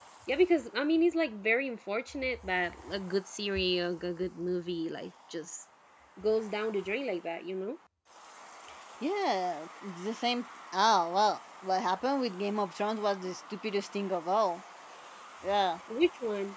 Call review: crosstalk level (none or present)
none